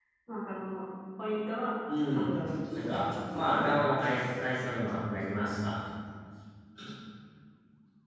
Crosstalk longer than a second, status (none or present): present